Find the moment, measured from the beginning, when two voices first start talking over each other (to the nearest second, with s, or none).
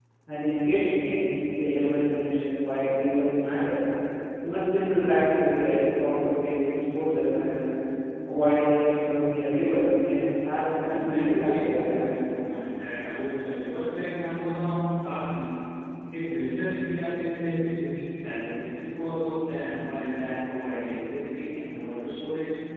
11 s